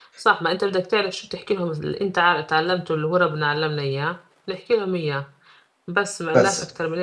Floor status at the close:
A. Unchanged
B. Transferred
A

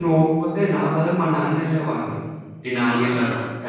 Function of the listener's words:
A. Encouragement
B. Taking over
A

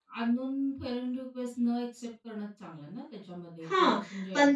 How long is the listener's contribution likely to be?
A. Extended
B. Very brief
A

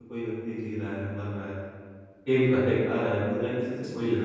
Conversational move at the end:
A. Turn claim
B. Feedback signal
A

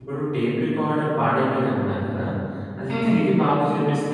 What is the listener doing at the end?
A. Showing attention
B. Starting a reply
A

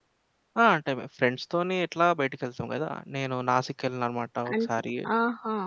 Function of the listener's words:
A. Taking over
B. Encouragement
A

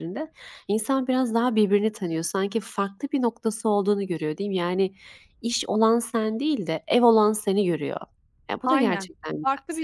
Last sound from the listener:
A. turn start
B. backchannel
A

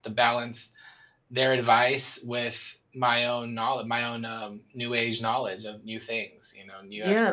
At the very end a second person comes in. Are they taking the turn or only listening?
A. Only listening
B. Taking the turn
B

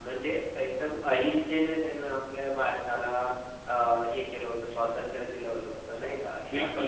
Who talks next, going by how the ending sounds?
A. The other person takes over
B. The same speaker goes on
A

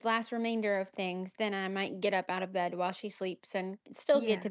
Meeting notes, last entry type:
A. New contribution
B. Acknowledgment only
B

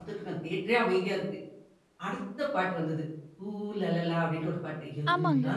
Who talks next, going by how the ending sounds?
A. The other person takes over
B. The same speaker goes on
B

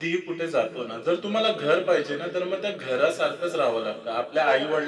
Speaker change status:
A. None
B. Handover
A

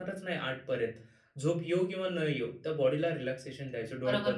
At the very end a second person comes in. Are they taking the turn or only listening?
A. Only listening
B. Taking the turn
B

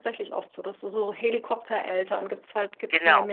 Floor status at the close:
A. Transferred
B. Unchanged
A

